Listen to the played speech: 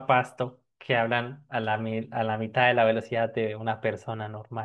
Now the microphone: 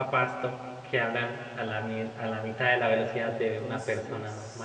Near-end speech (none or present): present